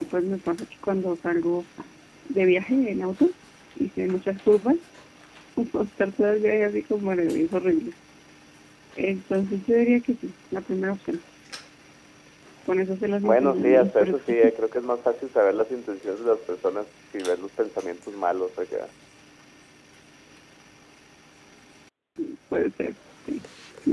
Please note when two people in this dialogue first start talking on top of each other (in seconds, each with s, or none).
13.2 s